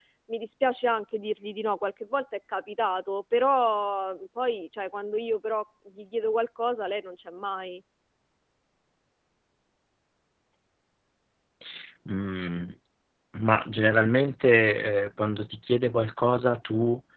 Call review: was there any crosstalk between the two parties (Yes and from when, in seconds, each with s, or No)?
No